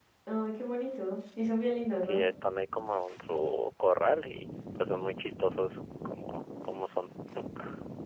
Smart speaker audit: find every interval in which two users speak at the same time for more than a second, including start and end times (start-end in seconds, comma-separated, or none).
none